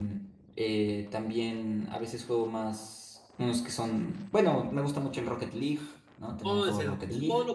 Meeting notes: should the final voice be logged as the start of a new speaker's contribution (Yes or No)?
Yes